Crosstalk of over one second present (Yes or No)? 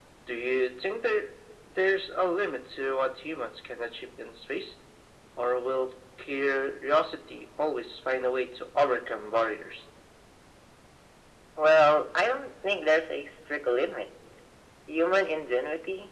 No